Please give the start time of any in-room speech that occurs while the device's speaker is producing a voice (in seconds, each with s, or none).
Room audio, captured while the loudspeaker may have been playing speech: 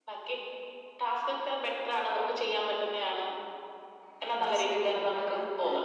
4.3 s